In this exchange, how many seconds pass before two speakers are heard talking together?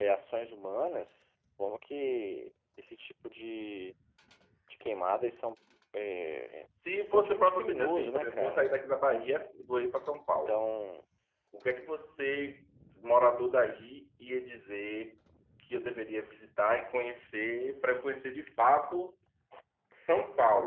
7.1 s

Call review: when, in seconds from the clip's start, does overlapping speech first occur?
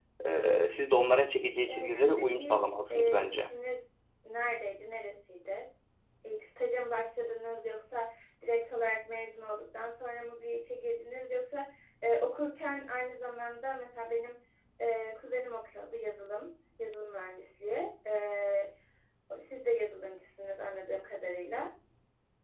1.7 s

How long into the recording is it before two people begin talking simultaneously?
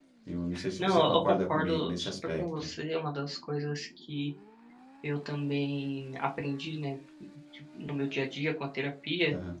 0.8 s

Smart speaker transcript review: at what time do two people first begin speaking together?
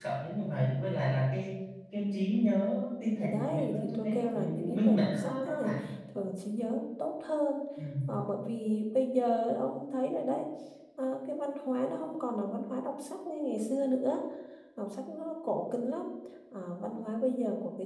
3.2 s

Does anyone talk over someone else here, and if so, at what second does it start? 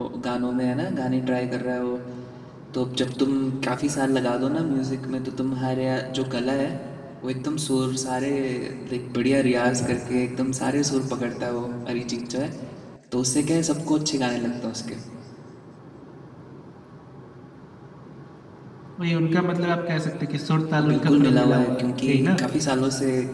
20.8 s

